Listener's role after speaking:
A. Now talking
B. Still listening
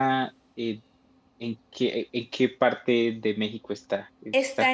A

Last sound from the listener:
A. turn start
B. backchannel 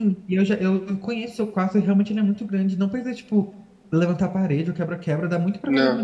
B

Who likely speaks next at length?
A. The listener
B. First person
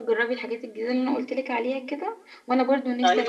B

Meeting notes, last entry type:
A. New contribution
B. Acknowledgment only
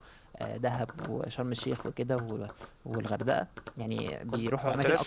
A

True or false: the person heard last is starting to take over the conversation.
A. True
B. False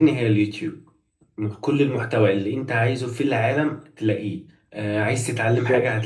B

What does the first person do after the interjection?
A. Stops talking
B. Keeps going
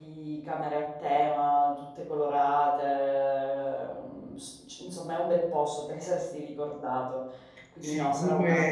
A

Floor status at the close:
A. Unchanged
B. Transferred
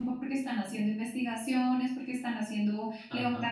A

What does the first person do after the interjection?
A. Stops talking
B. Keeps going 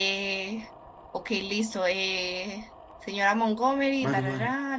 B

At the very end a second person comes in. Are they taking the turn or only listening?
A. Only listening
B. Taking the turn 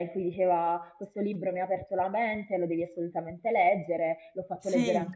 A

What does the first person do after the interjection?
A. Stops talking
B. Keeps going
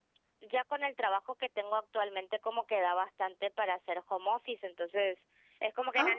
B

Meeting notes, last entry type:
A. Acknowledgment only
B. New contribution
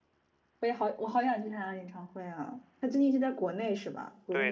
B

